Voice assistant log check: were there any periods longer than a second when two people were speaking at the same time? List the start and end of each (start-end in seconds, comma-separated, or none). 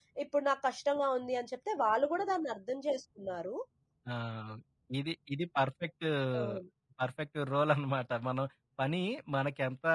none